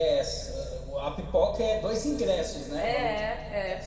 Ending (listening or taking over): taking over